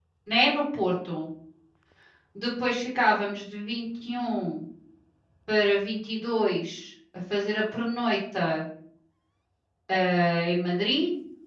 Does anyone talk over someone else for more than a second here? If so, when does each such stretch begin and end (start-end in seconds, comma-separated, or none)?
none